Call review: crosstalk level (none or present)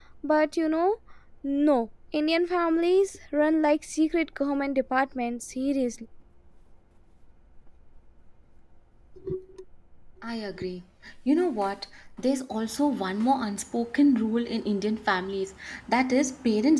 none